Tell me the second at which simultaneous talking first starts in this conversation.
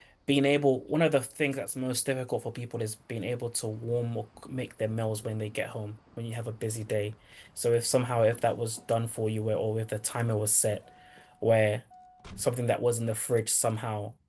none

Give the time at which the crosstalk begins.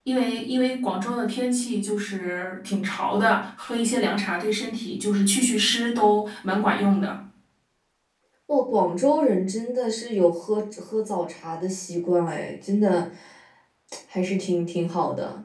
none

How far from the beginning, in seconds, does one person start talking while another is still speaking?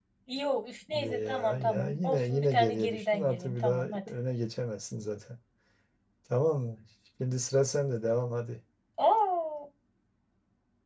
1 s

